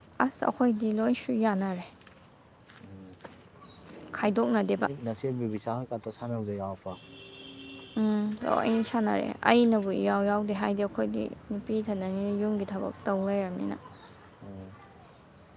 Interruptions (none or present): none